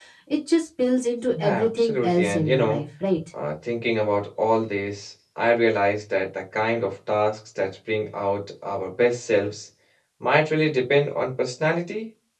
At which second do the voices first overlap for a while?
1.4 s

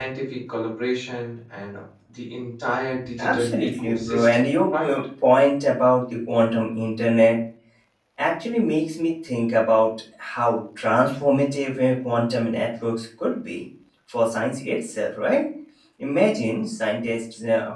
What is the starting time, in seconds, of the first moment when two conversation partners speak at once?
3.0 s

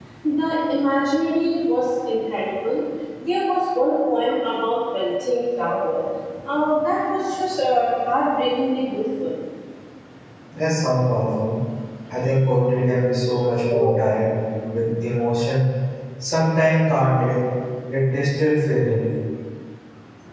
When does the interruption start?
none

